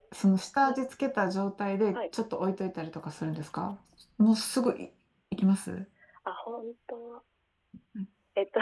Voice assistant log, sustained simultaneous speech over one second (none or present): none